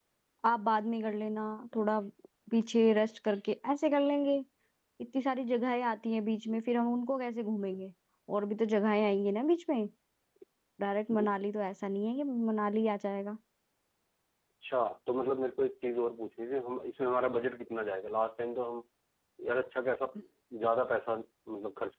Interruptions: none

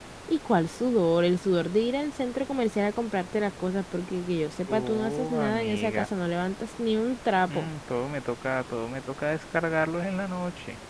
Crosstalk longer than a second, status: present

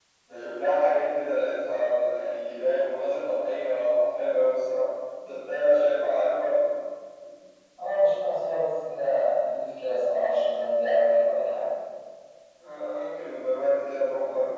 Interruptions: none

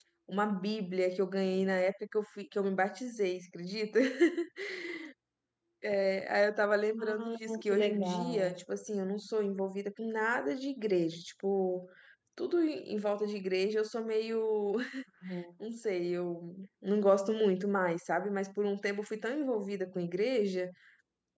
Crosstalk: present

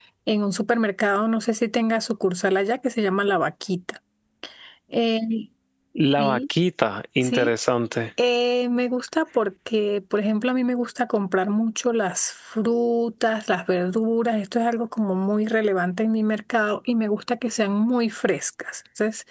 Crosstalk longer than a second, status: none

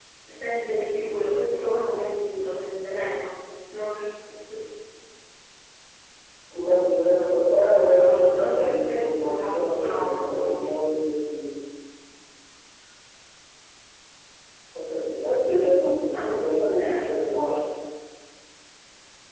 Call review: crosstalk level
present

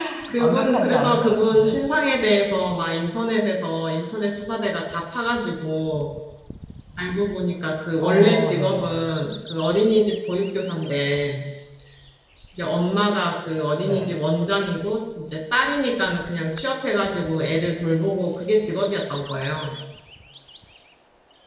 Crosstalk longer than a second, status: present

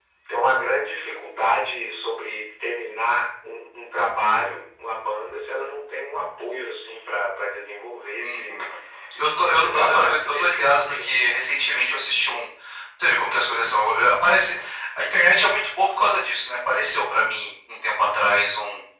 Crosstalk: present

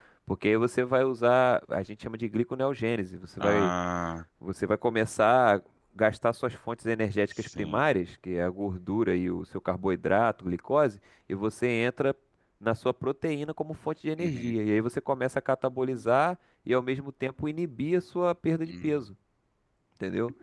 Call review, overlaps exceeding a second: none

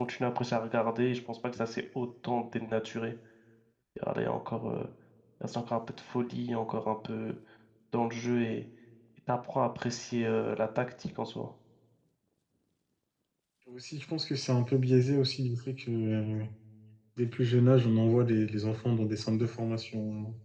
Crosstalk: none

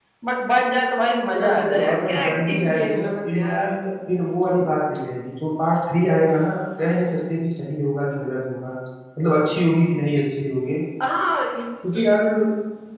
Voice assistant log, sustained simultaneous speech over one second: present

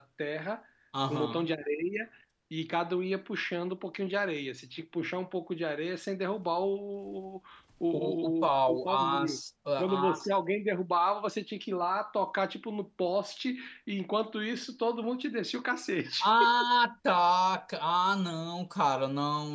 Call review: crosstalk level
present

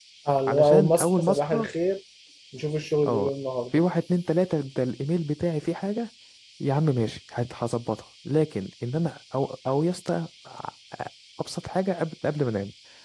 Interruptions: present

